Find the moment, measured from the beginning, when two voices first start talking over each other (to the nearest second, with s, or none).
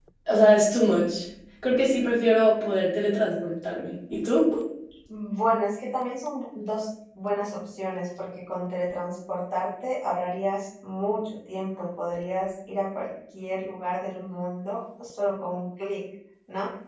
none